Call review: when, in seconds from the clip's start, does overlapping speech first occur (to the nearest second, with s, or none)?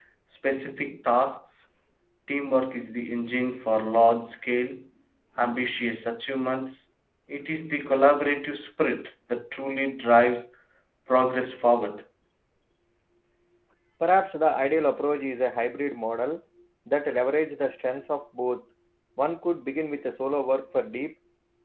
none